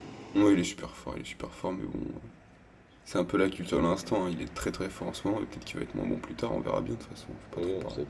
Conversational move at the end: taking over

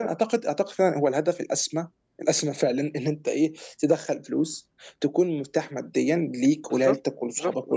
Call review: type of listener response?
taking over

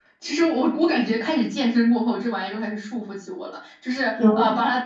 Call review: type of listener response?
listening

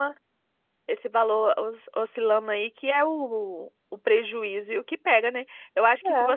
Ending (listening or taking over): listening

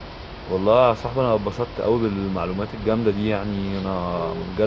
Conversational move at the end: listening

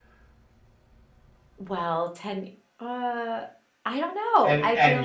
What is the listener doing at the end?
taking over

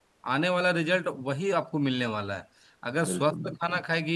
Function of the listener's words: listening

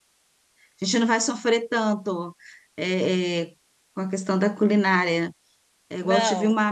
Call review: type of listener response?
listening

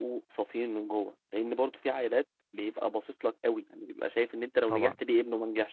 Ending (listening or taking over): listening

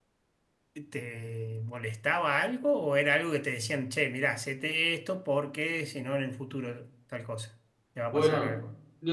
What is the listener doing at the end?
taking over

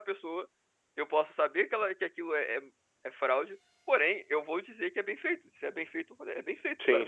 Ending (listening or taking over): taking over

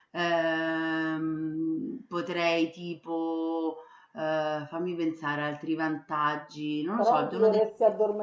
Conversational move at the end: taking over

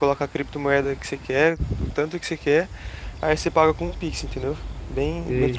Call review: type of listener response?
taking over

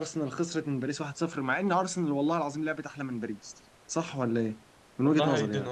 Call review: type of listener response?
taking over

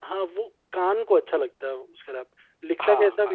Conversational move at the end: taking over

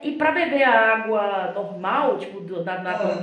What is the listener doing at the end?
listening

